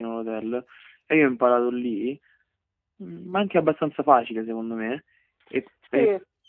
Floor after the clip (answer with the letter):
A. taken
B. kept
B